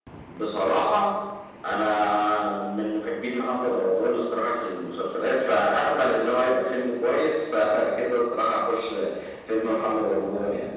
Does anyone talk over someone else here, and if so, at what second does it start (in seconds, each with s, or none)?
none